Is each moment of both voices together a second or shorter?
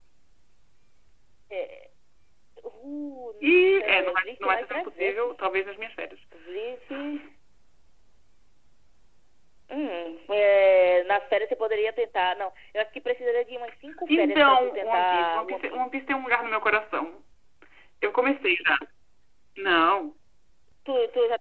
No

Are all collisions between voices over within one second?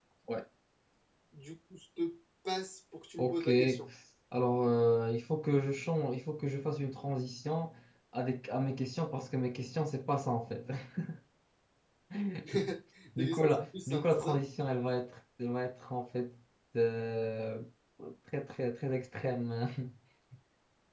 No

